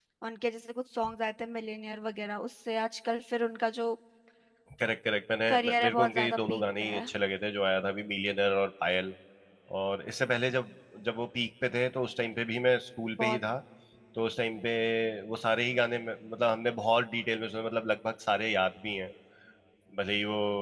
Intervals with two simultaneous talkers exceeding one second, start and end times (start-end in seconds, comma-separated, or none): 5.5-7.0